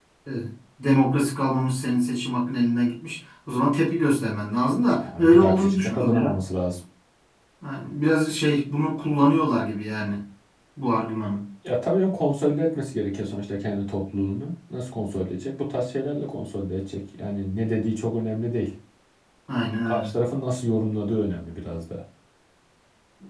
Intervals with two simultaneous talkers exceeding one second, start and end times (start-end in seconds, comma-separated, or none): 4.9-6.4